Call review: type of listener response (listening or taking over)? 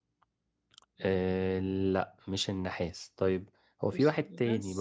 listening